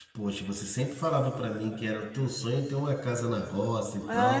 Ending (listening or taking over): taking over